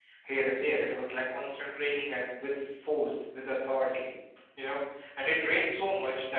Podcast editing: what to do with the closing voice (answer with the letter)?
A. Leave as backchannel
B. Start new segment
A